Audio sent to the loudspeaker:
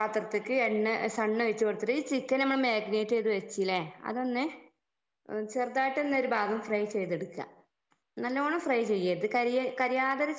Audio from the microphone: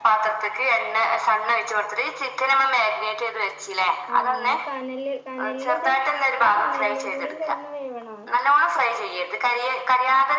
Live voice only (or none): ആ കനല് കനലില് ഇത് ഇത് കനലിലും കൂടി കെടന്നു വേവണോ